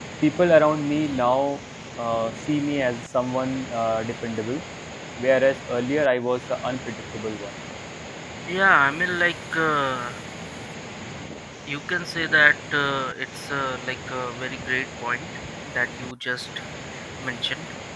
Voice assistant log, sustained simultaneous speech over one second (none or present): none